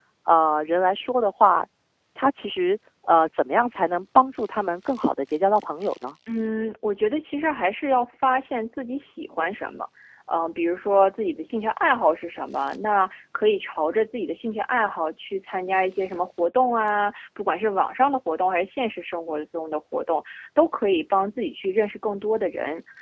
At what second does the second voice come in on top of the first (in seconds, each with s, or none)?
none